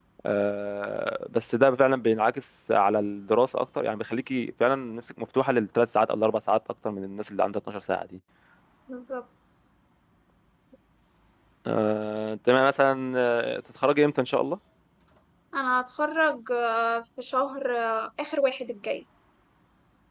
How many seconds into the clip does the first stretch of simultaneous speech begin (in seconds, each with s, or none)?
none